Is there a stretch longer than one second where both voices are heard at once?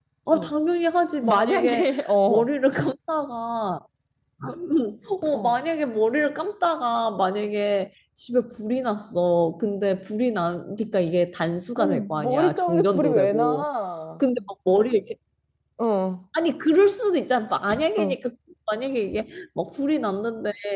Yes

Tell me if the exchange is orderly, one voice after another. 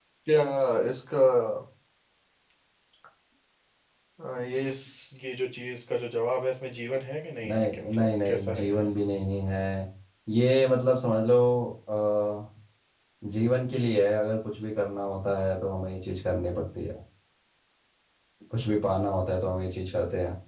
No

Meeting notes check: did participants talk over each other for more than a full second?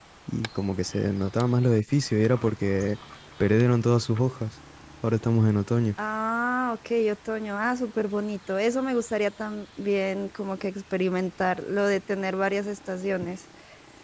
No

